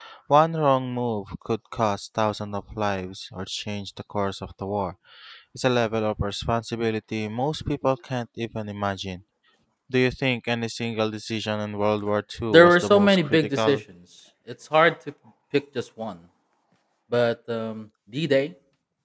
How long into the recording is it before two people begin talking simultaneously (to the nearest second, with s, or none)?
13 s